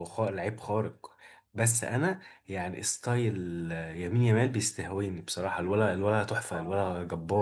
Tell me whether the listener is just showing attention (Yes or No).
No